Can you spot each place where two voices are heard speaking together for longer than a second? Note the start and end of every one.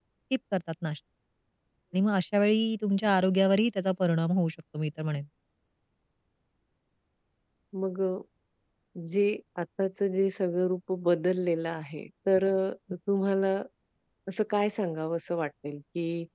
none

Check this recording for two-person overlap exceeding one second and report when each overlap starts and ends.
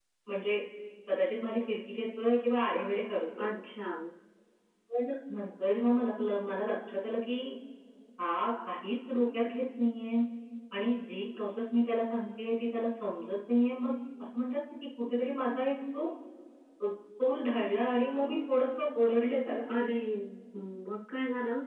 none

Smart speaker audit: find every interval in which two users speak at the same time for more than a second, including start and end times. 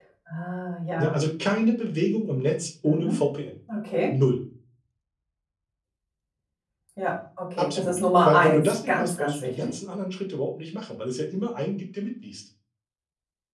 7.6-9.7

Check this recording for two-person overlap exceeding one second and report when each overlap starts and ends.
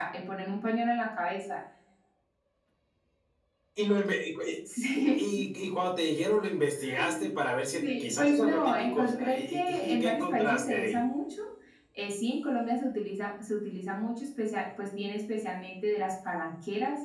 7.7-11.0

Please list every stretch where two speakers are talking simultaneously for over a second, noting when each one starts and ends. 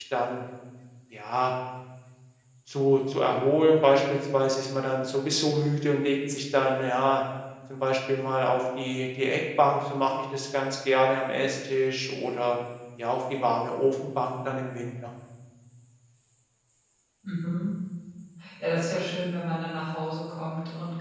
none

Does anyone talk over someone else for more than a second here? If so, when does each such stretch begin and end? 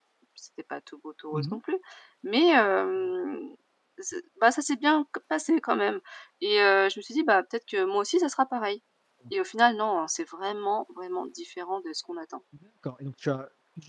none

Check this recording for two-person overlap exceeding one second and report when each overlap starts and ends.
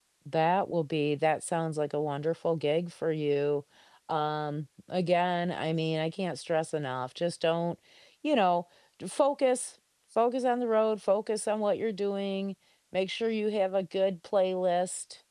none

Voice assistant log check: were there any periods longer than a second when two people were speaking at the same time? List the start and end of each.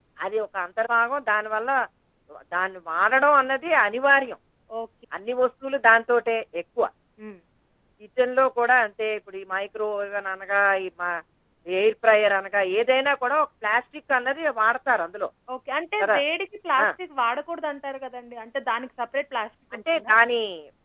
none

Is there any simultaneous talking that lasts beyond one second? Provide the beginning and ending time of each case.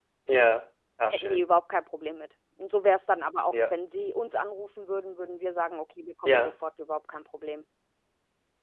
none

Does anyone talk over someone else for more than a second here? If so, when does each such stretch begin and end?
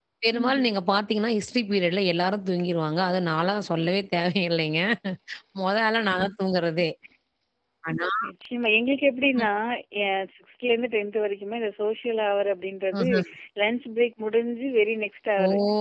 none

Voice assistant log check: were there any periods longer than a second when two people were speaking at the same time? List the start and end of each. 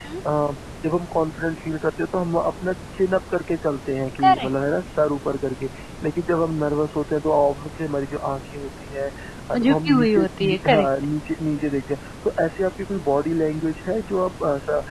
9.6-10.9

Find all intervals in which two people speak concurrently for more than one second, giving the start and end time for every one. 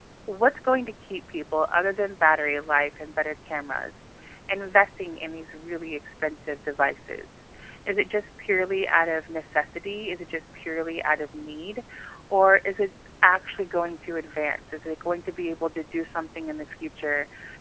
none

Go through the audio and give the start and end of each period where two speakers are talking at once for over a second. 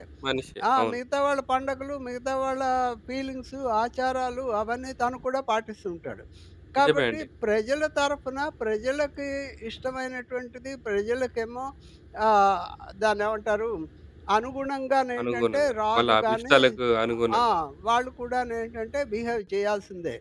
15.2-16.6

